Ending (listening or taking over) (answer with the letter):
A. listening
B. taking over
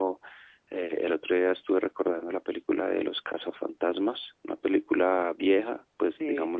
B